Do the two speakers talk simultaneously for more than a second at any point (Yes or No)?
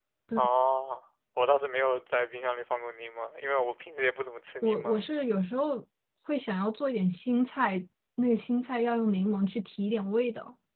No